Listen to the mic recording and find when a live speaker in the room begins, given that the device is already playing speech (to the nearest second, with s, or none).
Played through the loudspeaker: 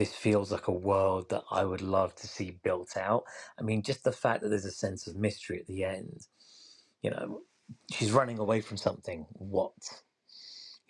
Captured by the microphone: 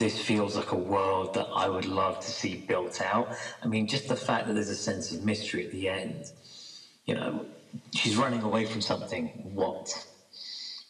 none